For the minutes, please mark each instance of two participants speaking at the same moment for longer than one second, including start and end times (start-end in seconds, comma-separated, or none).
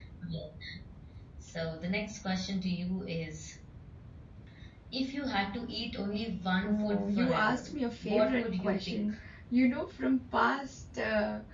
6.6-9.1